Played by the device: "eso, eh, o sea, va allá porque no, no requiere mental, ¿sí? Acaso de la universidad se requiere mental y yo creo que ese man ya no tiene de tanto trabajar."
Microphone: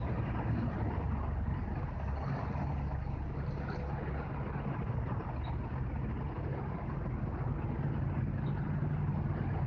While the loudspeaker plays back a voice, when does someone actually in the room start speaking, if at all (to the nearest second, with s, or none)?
none